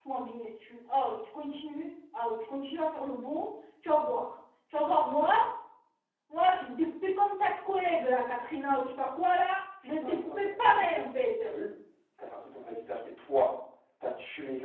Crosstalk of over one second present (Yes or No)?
Yes